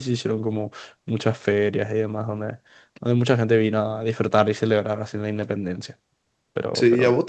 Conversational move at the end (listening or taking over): taking over